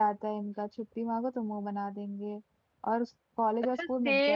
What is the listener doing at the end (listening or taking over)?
taking over